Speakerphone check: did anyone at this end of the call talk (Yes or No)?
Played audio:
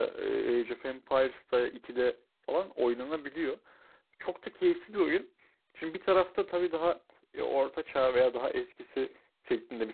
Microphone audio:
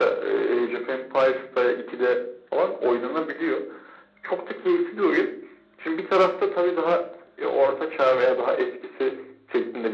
No